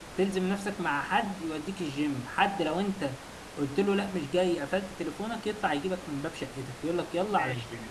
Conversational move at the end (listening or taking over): taking over